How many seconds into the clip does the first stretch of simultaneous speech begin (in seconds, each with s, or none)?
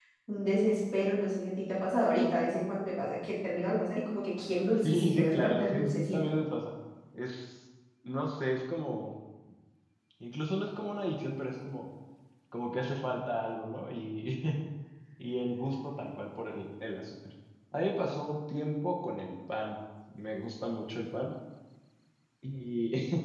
4.8 s